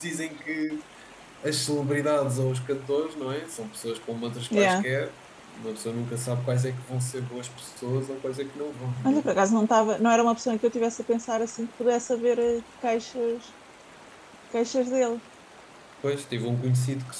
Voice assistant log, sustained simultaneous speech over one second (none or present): none